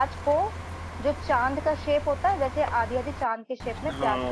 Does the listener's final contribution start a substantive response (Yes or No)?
Yes